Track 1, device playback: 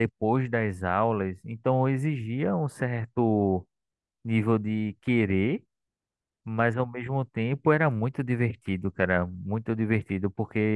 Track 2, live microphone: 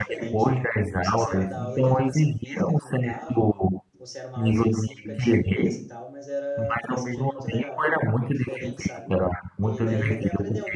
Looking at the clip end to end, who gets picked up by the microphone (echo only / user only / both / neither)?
both